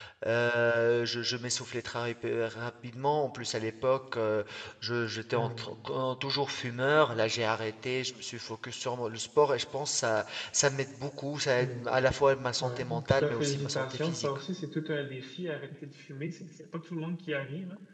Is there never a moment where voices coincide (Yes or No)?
No